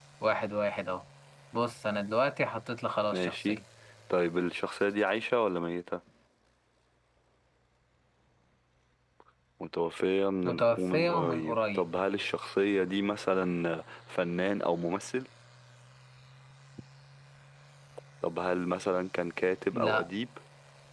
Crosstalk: present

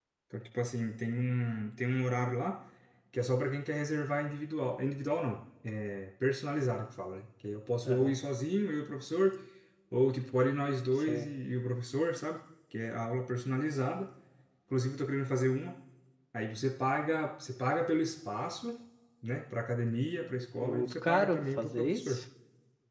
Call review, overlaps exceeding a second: present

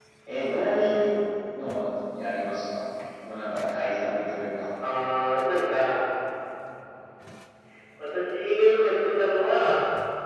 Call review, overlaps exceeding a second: none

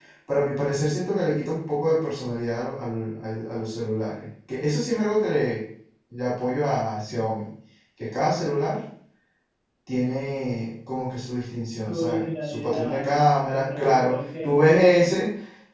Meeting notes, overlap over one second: present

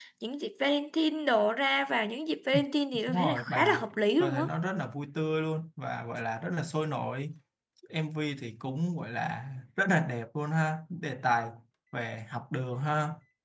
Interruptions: present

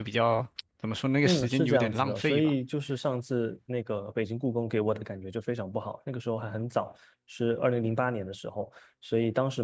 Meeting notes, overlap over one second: present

